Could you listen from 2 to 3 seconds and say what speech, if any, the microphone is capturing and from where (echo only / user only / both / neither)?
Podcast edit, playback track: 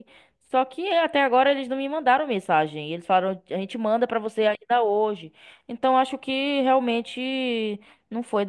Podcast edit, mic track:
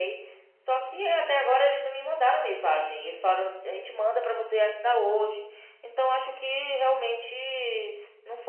echo only